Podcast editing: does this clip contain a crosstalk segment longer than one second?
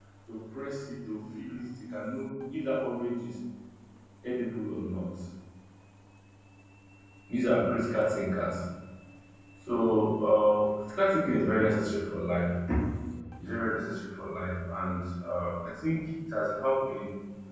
No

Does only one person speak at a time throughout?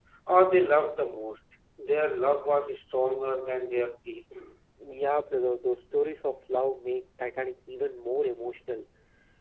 Yes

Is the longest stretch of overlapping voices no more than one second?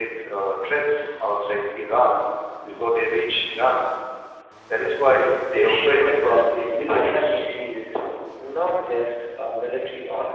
No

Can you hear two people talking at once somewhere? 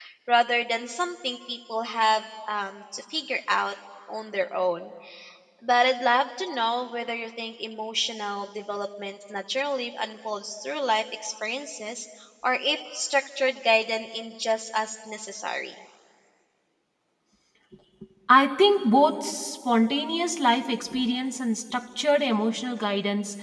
No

